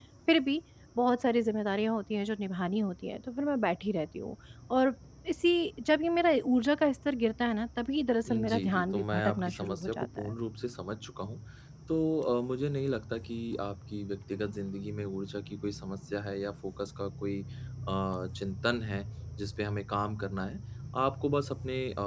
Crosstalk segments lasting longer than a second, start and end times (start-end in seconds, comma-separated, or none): 8.3-10.3